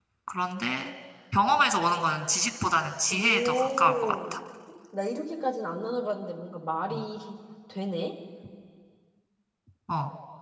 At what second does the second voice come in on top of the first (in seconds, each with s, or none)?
3.1 s